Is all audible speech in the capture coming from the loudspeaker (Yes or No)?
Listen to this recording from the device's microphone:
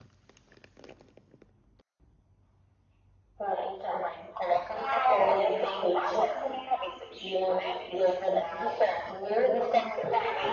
Yes